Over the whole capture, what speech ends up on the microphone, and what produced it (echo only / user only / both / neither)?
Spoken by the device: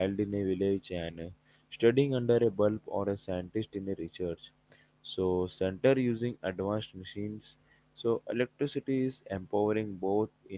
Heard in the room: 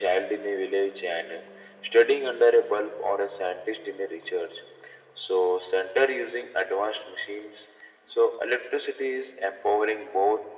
echo only